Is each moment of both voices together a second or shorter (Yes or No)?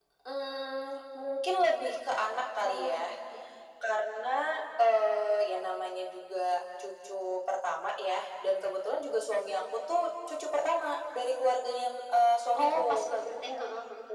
Yes